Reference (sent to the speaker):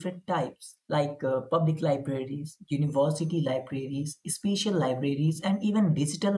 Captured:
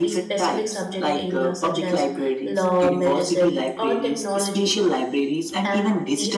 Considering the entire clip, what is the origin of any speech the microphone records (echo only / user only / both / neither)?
both